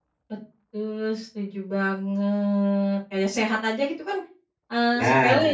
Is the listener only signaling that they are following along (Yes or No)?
Yes